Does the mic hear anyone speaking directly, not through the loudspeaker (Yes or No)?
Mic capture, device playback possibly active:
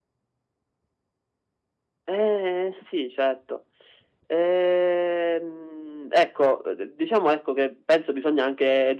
No